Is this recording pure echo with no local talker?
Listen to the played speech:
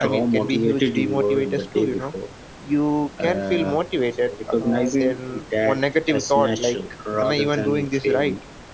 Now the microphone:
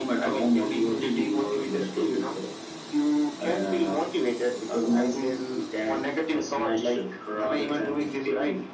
Yes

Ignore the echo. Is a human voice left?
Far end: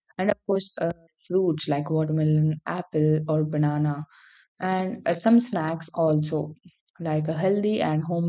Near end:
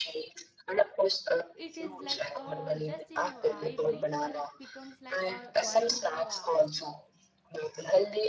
Yes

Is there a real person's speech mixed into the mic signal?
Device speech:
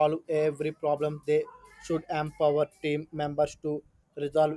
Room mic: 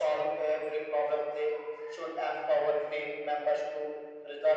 No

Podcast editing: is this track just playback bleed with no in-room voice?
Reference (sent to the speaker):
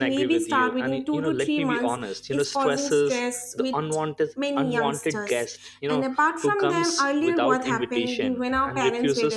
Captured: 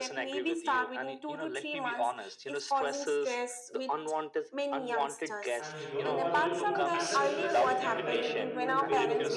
No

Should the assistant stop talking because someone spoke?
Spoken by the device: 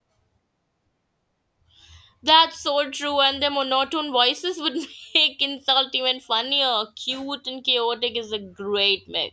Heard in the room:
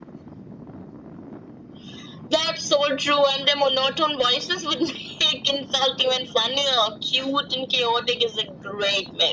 No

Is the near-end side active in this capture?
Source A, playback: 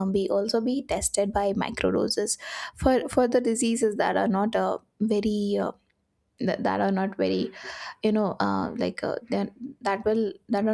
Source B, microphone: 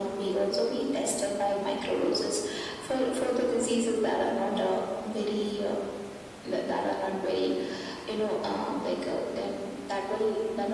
No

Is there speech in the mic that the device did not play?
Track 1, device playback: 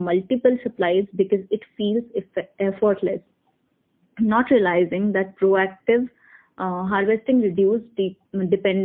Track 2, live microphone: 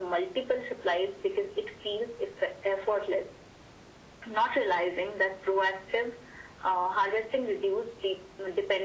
No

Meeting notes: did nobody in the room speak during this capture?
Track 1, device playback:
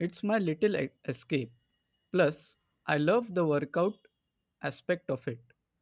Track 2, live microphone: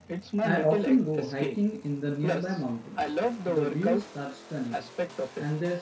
No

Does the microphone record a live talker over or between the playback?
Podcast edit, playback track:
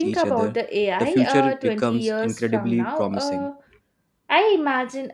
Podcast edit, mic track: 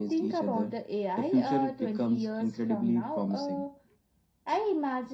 No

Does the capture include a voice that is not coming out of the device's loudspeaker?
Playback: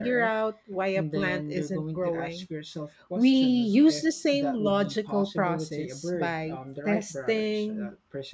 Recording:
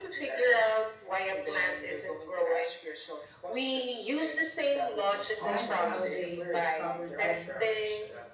Yes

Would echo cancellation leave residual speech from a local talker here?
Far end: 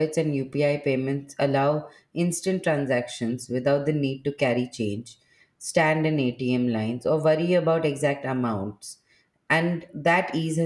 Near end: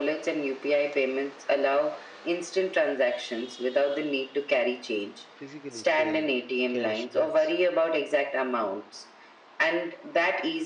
Yes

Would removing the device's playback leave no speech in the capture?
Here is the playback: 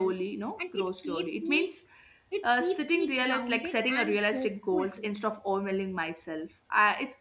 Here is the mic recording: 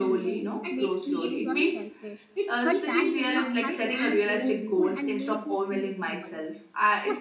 No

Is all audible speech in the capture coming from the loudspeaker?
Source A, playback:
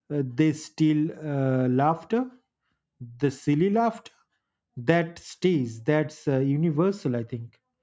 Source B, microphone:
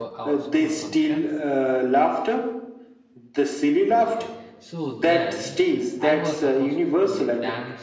No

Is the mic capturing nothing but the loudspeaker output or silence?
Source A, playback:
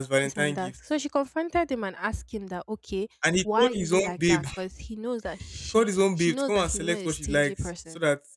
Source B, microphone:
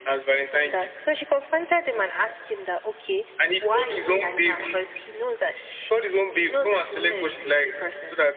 Yes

